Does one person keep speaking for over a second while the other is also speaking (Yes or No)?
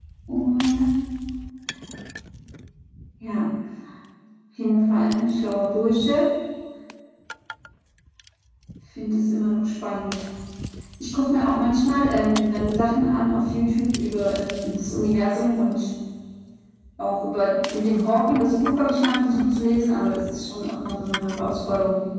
No